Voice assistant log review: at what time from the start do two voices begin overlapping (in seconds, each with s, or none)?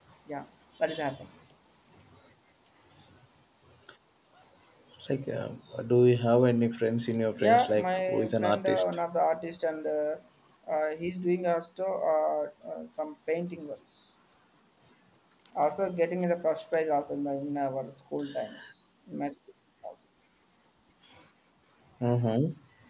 7.4 s